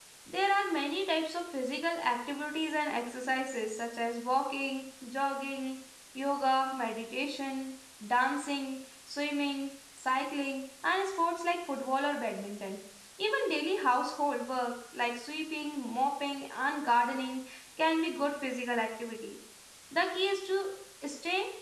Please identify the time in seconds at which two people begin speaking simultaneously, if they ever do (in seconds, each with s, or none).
none